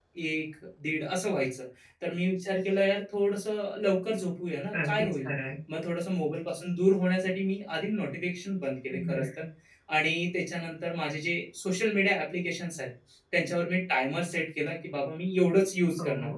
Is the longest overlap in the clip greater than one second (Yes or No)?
No